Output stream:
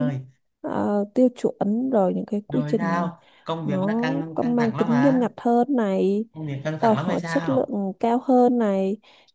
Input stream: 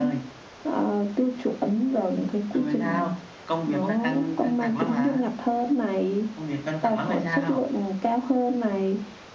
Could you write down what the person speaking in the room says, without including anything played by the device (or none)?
none